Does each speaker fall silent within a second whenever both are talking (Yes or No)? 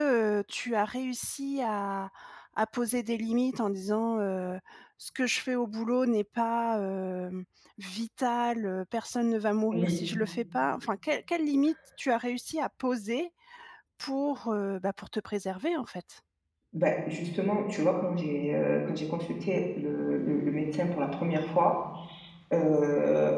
Yes